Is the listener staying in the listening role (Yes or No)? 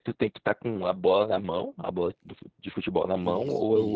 No